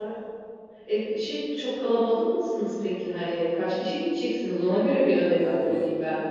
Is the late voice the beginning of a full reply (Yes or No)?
Yes